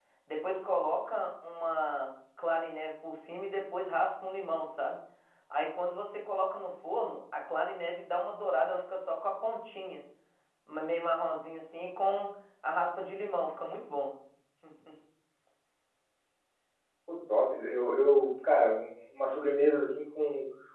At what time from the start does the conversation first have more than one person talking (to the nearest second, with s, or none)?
none